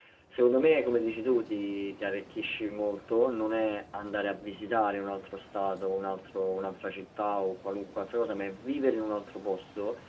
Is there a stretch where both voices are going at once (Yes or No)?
No